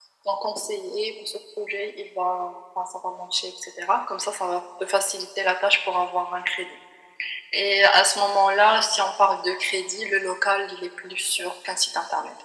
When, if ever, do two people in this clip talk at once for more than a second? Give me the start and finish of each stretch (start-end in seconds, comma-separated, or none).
none